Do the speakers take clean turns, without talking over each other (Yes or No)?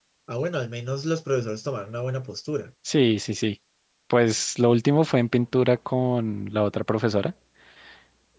Yes